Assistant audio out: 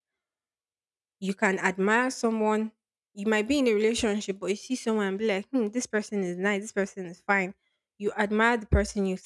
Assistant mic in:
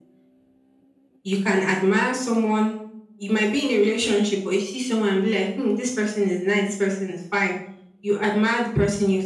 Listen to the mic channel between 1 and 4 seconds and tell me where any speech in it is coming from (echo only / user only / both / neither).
echo only